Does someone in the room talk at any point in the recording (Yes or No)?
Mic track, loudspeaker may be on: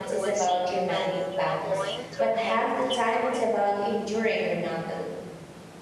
Yes